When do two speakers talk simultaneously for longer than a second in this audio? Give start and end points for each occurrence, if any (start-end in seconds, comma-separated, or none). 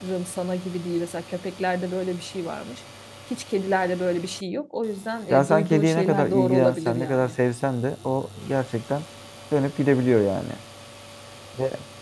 5.3-7.4